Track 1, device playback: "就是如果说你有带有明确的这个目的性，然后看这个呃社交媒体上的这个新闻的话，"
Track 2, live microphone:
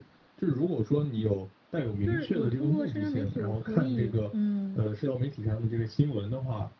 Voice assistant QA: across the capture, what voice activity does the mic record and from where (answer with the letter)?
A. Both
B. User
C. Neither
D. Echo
A